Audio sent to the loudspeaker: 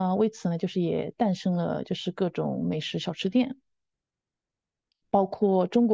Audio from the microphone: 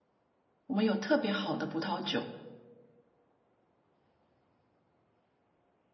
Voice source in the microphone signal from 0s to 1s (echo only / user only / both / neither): user only